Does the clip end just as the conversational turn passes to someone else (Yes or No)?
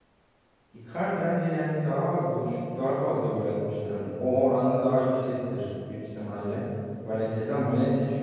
No